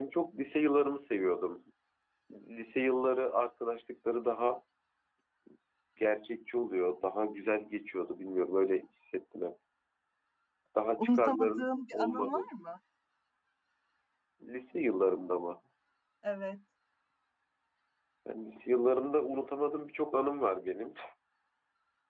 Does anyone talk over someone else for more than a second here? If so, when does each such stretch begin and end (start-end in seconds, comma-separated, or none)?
11.0-12.5